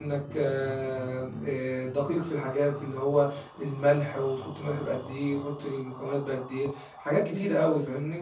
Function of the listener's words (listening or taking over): taking over